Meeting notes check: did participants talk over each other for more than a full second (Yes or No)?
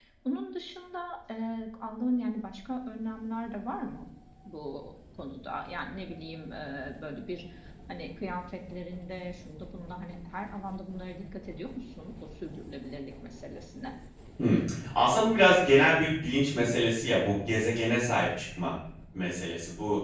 No